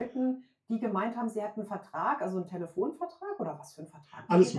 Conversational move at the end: taking over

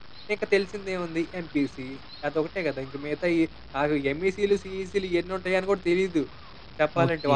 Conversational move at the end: taking over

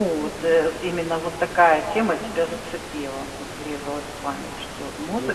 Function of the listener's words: taking over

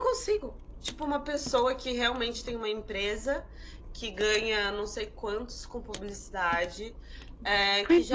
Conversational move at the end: listening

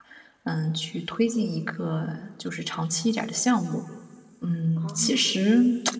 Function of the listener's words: listening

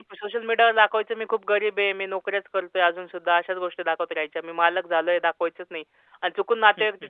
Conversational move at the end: listening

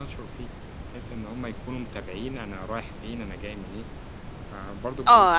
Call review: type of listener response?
taking over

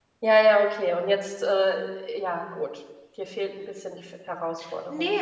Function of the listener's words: taking over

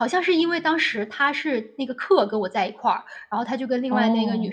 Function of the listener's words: listening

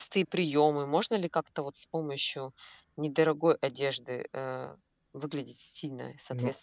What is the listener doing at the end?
taking over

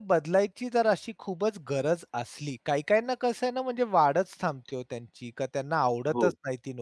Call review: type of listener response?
listening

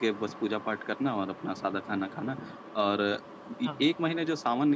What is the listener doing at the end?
listening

